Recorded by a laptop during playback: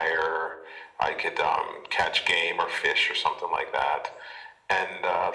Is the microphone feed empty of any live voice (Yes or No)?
Yes